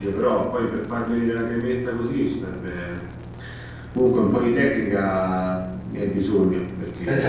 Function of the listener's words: taking over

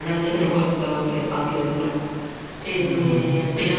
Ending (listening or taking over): listening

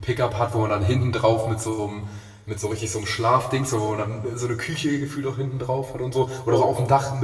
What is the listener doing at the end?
listening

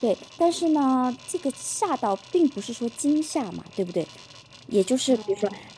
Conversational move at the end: listening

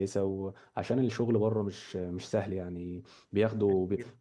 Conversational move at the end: listening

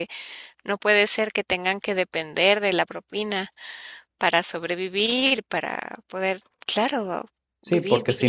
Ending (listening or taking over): taking over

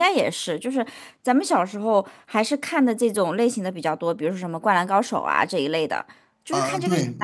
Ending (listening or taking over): taking over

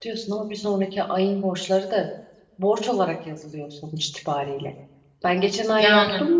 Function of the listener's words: listening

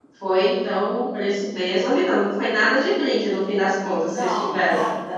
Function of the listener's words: taking over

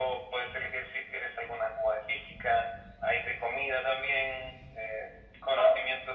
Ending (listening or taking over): listening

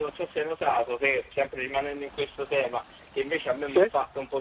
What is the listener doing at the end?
listening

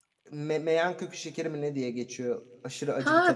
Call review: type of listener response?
taking over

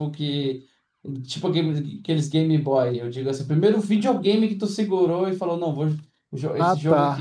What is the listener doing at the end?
taking over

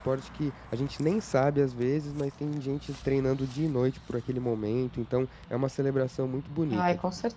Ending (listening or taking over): taking over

